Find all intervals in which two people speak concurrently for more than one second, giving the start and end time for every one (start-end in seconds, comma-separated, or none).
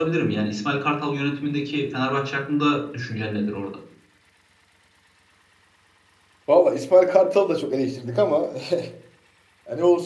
none